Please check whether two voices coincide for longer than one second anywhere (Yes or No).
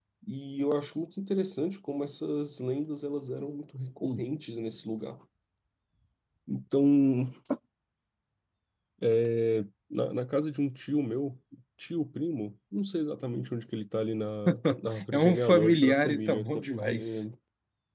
Yes